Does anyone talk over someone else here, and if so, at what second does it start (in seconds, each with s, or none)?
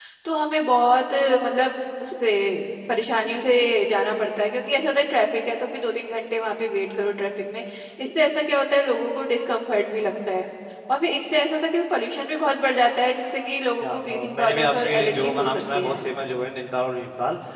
13.8 s